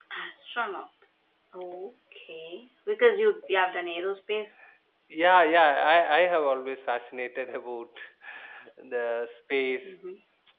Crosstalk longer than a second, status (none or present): none